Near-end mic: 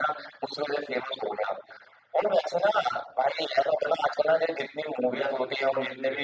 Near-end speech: present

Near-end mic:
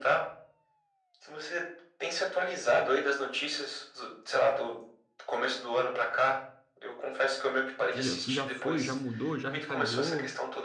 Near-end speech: present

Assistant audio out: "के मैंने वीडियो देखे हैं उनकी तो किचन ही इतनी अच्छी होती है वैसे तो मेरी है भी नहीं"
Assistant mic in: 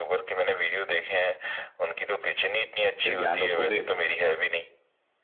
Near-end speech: present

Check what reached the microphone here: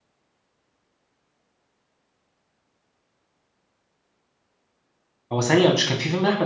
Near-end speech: present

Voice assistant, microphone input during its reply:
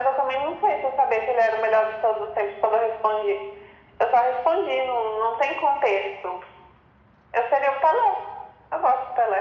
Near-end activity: none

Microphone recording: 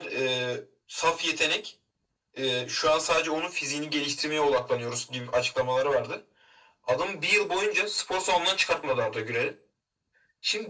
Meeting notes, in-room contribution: none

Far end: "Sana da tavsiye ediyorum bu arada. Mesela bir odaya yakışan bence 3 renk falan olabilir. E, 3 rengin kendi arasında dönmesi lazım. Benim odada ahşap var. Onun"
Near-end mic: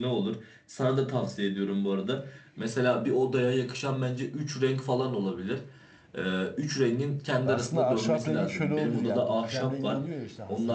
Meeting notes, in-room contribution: present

